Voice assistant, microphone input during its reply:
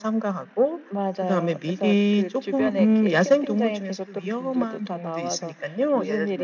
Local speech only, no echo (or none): none